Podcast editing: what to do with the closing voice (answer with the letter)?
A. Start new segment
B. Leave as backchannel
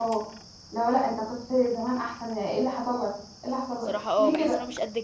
A